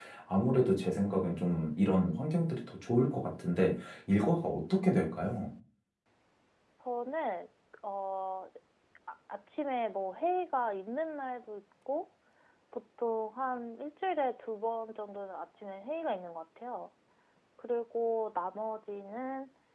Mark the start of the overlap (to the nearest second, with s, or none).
none